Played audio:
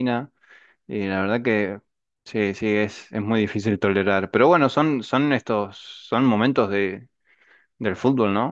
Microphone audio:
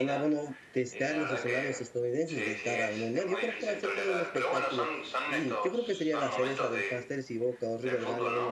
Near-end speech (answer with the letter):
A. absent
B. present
B